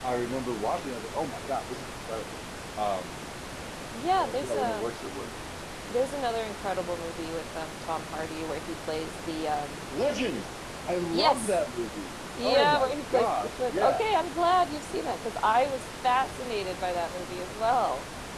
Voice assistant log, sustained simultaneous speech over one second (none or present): present